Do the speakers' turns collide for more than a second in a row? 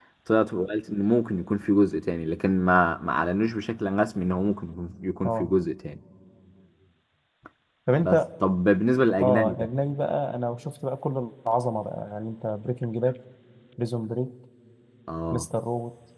No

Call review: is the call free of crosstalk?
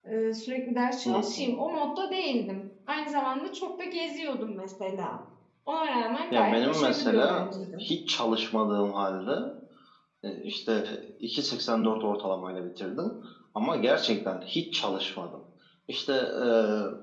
No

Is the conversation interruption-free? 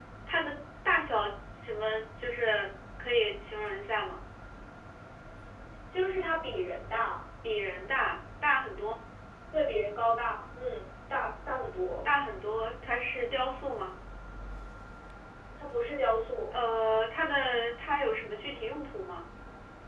Yes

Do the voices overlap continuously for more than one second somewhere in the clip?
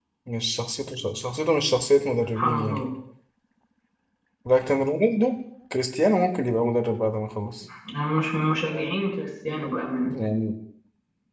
No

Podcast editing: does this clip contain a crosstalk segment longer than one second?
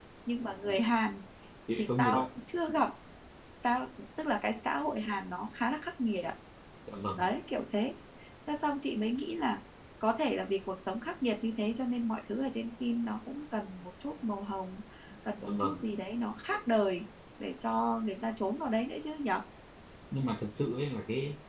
No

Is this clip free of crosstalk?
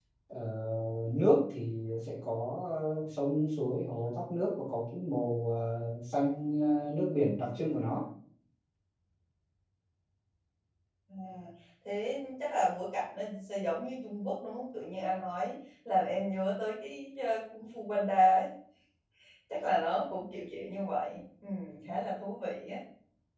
Yes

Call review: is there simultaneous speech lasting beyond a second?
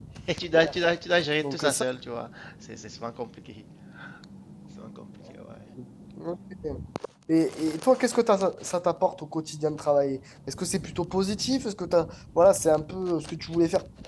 No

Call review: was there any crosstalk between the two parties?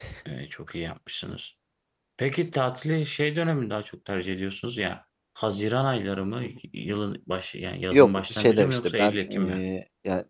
Yes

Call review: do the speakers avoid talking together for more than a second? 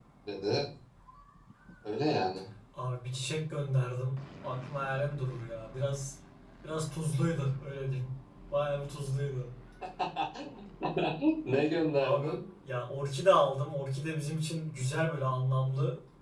Yes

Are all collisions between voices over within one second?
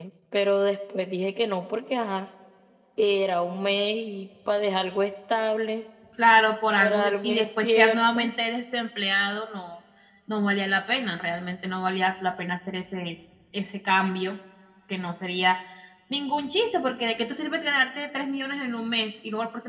No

